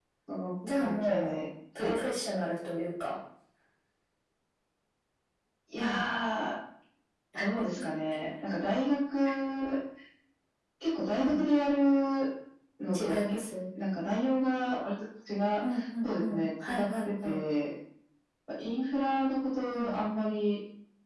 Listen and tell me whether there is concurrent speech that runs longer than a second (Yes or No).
Yes